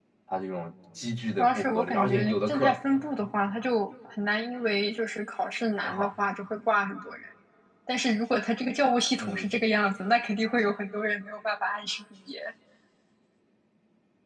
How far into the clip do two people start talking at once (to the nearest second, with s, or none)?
1 s